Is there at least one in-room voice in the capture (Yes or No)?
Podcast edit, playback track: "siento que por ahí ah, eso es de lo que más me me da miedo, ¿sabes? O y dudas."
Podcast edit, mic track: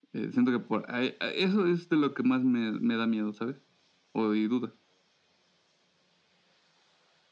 No